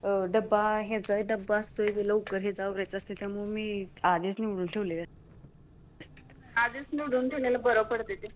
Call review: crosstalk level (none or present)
none